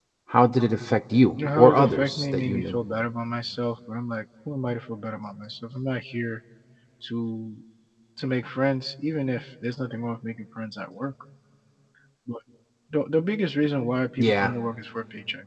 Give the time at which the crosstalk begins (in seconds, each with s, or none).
1.6 s